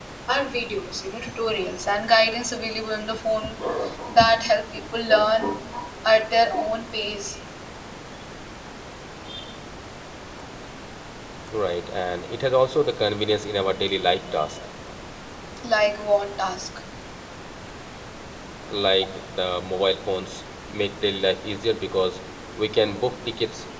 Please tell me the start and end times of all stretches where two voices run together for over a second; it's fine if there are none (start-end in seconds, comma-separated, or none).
none